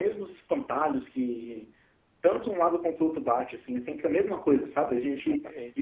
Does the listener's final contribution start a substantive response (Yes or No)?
No